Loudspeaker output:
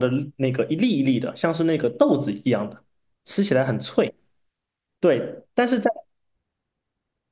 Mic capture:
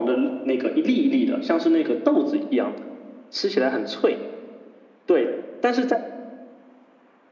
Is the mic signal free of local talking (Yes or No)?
Yes